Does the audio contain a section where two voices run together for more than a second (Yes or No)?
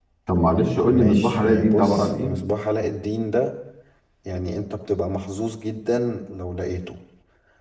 Yes